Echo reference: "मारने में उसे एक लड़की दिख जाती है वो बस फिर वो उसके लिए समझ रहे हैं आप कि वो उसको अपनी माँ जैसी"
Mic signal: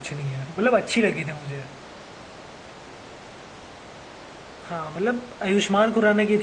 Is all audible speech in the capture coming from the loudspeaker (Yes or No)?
No